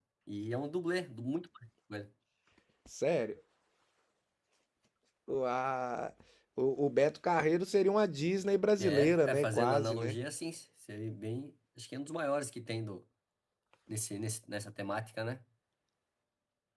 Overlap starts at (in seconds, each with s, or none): 8.8 s